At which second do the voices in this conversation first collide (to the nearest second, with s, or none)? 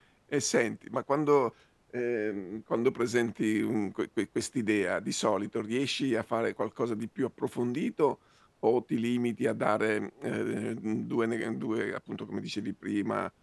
none